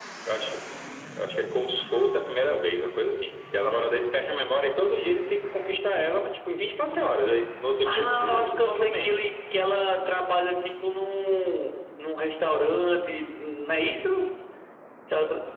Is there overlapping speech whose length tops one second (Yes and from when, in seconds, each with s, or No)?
Yes, from 7.8 s